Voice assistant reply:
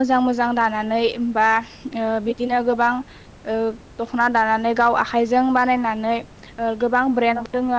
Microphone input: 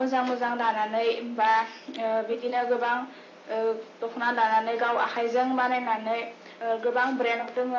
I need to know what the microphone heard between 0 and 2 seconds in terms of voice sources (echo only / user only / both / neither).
echo only